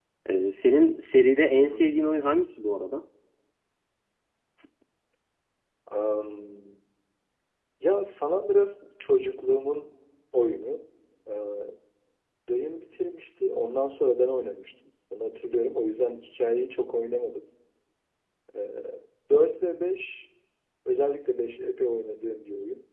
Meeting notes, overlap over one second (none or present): none